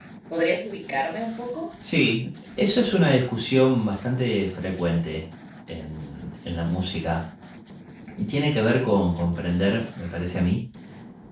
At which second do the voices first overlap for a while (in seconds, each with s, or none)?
none